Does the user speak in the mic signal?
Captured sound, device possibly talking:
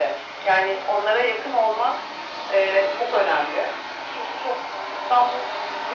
No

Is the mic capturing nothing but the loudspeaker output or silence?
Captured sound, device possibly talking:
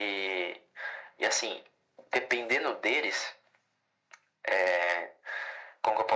Yes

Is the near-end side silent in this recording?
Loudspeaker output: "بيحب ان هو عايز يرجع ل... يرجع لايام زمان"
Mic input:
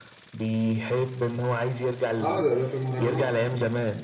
No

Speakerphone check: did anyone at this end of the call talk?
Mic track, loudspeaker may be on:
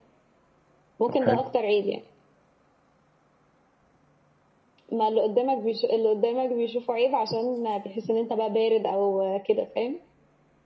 Yes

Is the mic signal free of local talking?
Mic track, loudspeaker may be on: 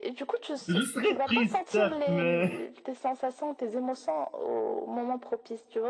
No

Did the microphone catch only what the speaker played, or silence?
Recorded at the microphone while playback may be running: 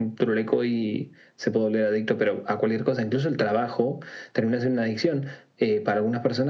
Yes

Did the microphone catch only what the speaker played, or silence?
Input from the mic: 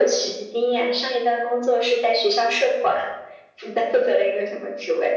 Yes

